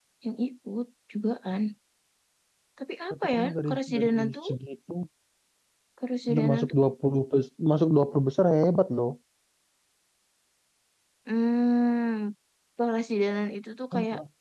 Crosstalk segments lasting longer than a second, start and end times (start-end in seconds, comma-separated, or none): 3.1-4.5